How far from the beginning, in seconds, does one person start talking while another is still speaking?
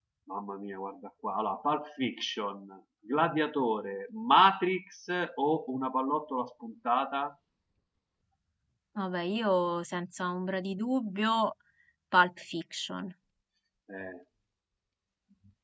none

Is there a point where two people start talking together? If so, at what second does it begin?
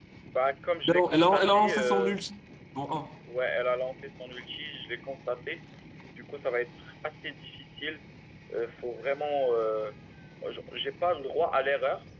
0.8 s

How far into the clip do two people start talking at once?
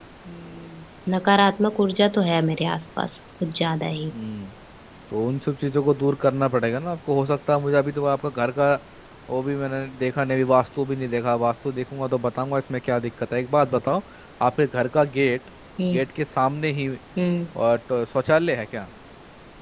none

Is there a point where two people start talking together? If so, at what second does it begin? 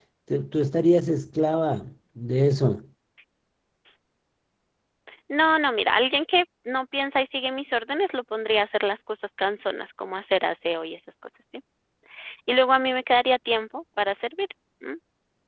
none

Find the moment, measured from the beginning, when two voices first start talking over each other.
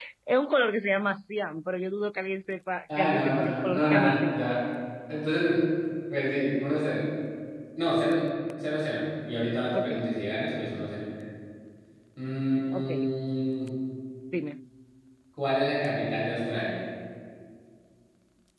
3.0 s

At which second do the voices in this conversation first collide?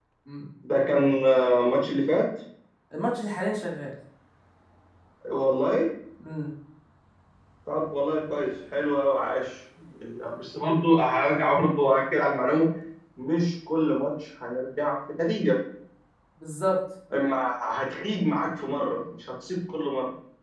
none

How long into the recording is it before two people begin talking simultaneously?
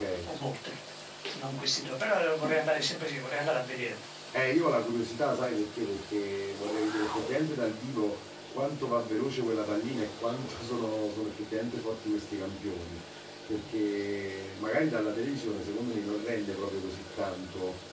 none

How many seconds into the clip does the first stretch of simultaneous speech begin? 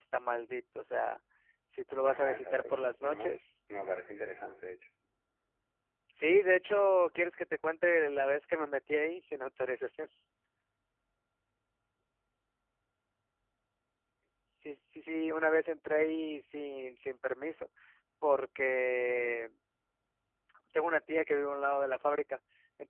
2.0 s

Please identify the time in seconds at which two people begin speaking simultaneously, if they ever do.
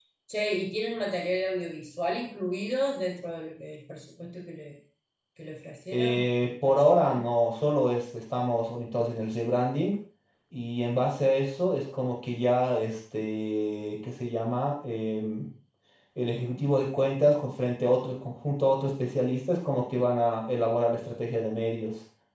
5.9 s

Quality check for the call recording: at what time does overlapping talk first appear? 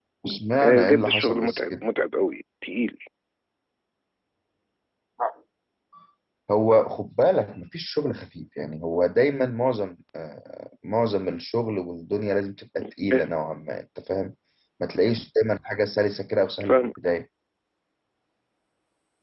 0.6 s

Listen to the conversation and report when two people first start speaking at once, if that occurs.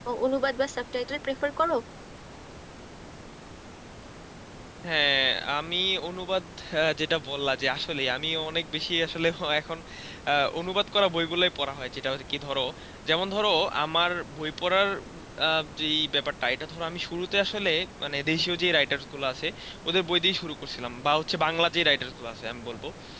none

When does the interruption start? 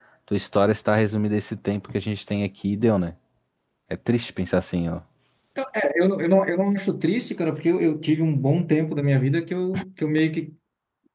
none

